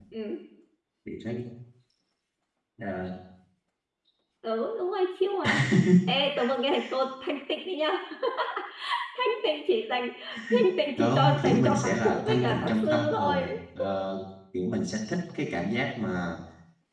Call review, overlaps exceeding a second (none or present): present